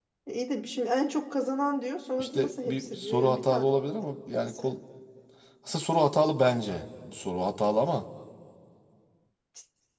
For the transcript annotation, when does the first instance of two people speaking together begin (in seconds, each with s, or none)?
2.2 s